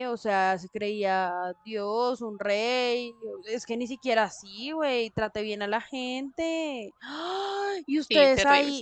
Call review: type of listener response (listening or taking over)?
listening